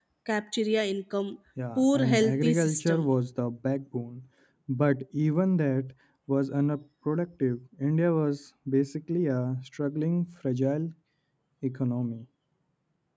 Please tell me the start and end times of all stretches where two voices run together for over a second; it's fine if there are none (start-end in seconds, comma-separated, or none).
1.8-3.1